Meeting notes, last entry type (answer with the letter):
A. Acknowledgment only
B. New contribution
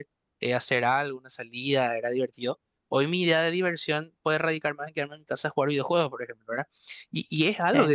A